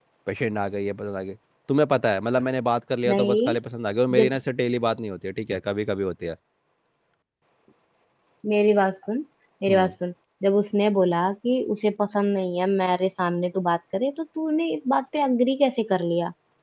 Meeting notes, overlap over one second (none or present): none